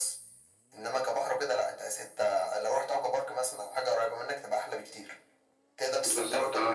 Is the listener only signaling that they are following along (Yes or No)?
Yes